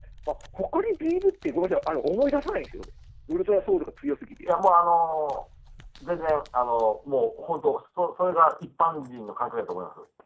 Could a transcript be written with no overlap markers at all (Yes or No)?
Yes